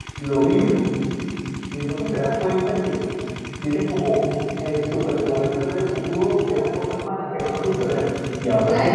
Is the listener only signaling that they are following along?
No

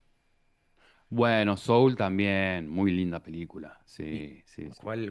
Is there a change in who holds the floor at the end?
Yes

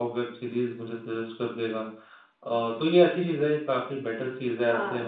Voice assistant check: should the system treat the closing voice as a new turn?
No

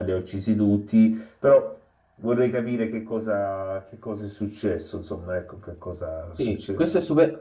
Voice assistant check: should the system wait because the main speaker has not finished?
No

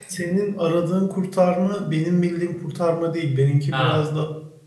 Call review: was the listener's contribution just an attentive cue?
Yes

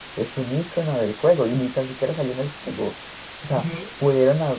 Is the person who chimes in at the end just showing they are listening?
Yes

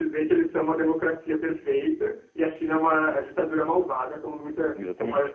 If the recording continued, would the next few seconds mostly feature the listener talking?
No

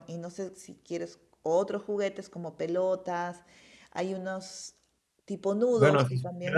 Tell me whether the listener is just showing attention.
No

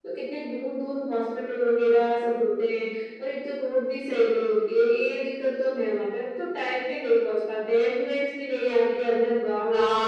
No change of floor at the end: No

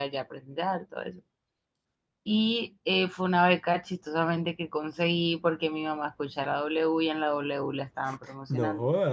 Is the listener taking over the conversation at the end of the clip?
Yes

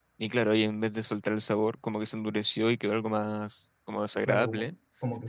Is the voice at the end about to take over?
Yes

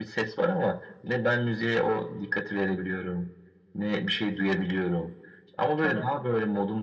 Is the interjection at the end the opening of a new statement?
No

